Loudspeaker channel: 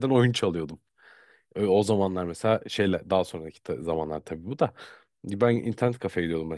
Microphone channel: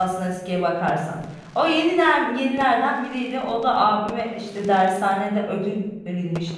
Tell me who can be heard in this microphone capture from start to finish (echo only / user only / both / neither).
user only